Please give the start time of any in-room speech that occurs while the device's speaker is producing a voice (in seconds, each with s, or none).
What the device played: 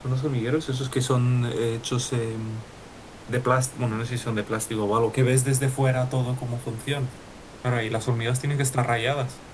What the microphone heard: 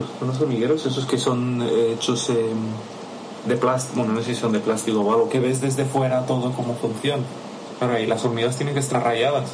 none